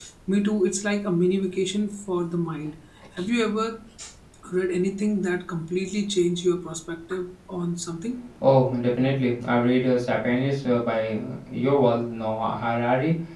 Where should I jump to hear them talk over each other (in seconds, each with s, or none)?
none